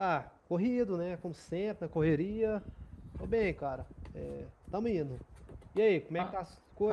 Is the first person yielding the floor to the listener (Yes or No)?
Yes